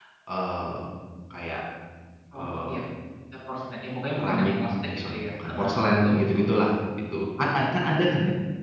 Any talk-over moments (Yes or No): Yes